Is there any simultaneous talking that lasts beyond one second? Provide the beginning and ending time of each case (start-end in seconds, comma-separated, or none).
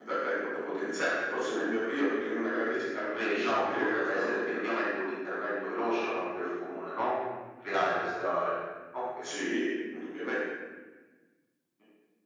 3.1-4.8